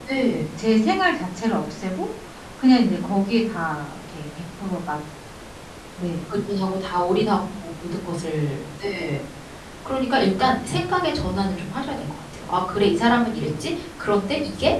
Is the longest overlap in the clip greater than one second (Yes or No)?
No